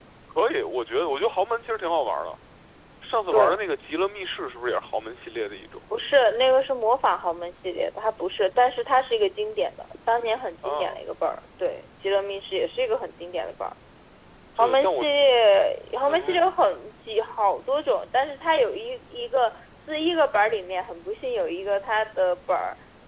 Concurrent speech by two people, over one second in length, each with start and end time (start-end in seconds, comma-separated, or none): none